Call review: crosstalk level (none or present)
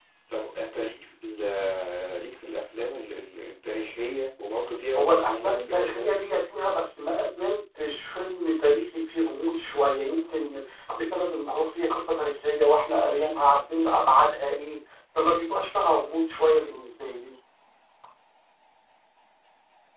present